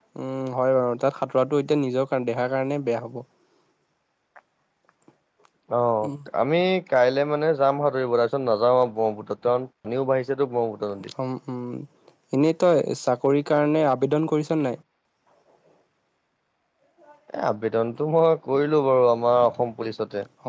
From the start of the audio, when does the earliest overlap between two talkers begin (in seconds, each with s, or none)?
none